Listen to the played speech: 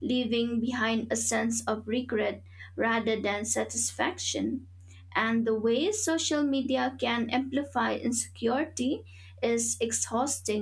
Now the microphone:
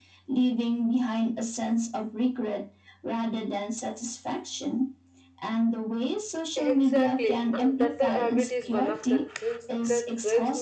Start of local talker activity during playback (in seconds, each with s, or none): 6.6 s